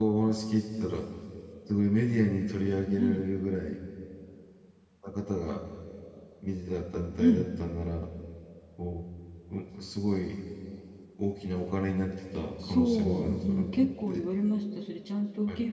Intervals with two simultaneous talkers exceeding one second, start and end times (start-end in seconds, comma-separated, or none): 12.6-14.2